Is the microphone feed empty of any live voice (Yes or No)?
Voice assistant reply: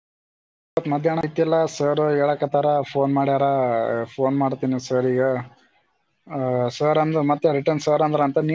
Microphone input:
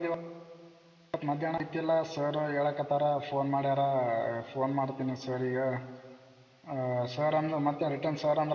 Yes